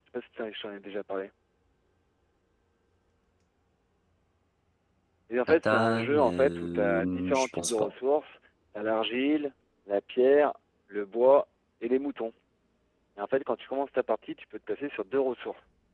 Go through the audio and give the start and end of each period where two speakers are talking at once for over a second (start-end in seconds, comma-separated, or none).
5.5-7.9